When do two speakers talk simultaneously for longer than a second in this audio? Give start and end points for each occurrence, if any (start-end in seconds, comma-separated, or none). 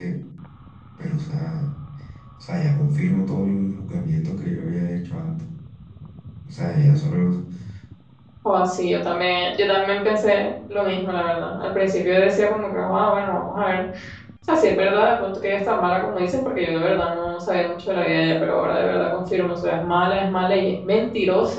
none